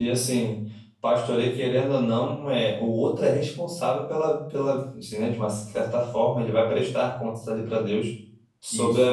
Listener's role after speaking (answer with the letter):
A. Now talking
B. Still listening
B